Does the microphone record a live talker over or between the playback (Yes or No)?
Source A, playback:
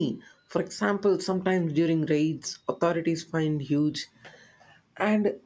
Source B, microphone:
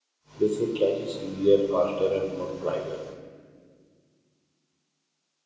Yes